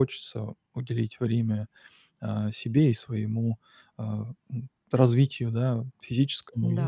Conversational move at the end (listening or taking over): listening